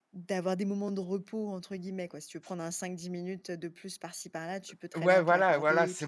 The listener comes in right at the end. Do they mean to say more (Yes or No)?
Yes